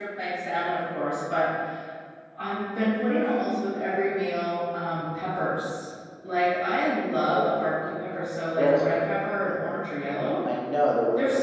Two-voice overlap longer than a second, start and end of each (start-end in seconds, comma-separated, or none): none